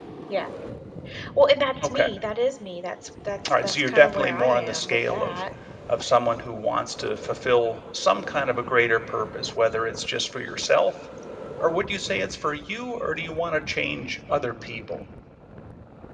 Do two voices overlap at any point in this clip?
Yes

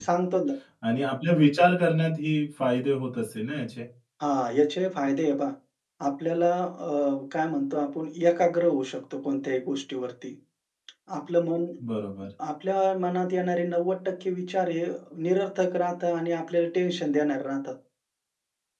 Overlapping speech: No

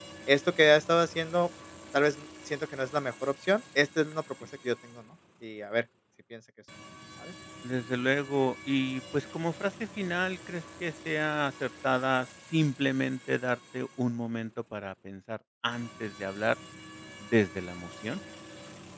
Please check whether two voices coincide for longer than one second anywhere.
No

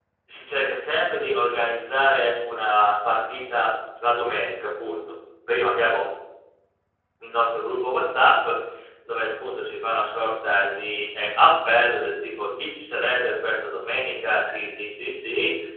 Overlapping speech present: No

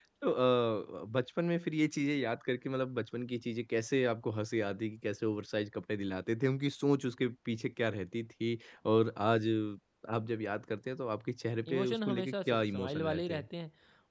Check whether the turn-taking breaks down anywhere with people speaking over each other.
Yes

